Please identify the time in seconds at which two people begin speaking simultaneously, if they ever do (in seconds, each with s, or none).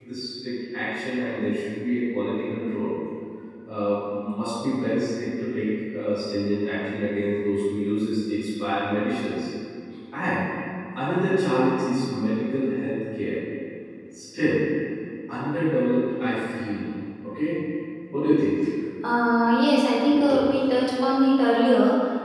none